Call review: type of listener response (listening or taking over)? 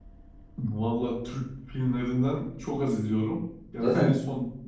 listening